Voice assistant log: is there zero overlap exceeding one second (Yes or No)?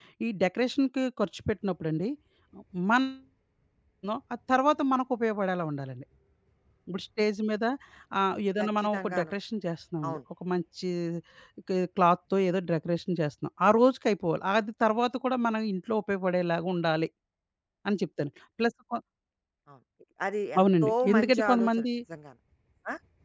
No